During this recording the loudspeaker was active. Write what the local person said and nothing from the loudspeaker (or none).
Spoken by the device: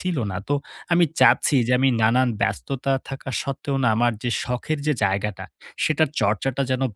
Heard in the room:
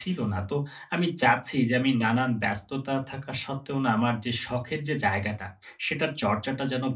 none